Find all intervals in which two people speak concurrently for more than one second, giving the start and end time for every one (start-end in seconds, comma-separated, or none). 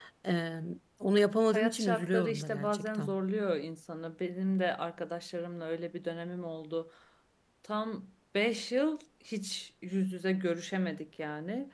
1.5-3.2